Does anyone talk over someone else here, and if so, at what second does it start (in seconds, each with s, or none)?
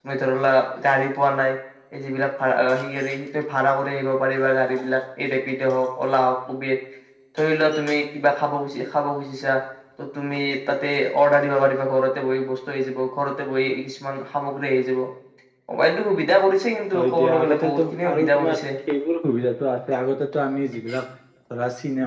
16.9 s